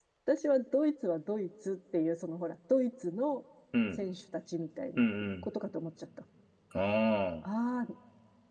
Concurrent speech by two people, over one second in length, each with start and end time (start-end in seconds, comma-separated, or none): none